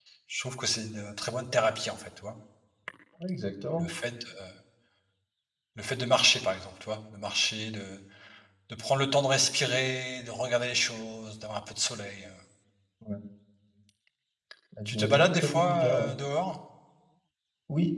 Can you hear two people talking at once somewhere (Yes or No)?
Yes